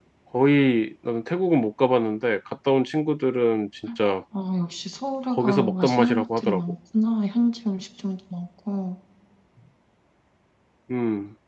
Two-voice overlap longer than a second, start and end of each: 5.3-6.6

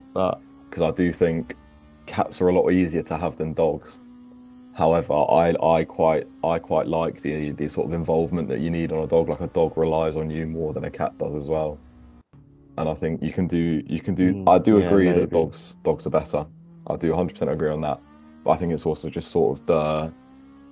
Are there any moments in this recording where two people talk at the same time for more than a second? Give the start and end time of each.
14.2-15.5

